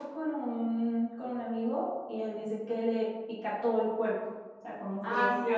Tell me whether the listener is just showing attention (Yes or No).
Yes